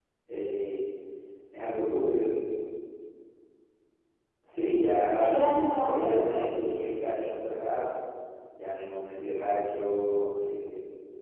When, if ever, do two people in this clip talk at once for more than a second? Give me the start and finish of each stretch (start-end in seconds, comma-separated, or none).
5.1-6.8